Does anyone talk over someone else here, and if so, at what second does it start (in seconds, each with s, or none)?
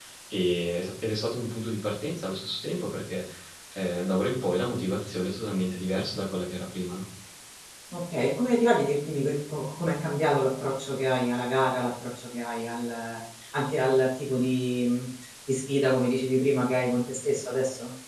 none